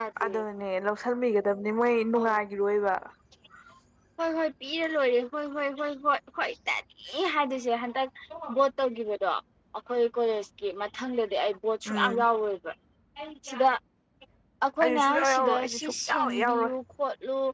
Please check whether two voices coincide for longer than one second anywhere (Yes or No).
Yes